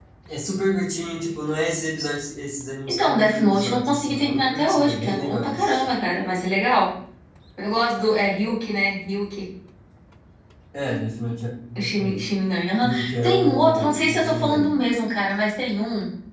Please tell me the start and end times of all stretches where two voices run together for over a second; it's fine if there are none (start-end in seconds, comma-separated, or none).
2.9-6.0, 12.8-14.8